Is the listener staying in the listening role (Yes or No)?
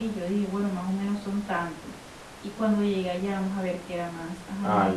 No